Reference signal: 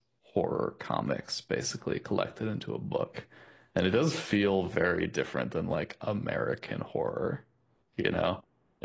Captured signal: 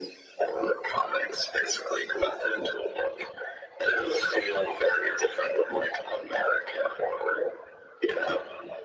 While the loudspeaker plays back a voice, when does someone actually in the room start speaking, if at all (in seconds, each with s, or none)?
none